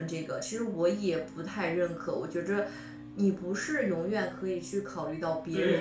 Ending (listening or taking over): taking over